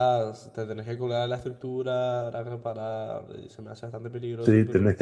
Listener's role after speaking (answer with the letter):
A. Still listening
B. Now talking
B